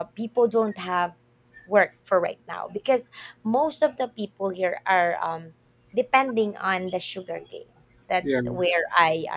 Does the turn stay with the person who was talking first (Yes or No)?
Yes